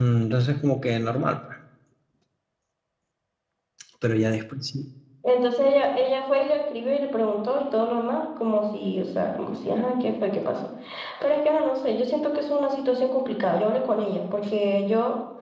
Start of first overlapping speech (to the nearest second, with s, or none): none